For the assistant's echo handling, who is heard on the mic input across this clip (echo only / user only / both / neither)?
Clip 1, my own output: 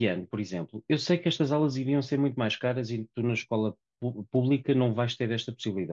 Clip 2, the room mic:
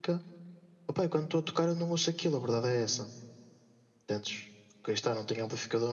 user only